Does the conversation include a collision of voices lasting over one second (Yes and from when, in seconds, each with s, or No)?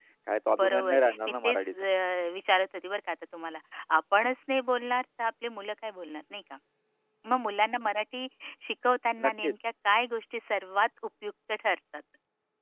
Yes, from 0.6 s